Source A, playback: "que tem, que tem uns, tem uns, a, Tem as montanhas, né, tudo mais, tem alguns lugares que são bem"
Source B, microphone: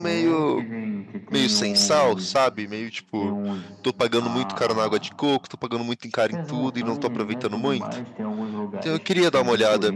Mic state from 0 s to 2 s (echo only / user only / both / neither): both